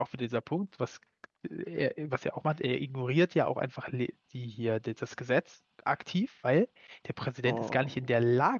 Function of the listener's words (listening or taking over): listening